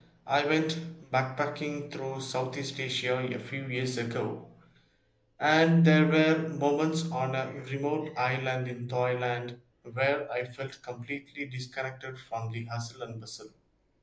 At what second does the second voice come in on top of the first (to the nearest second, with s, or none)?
none